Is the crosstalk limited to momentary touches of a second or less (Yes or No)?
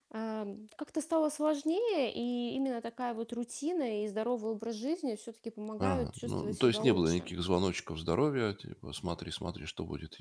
No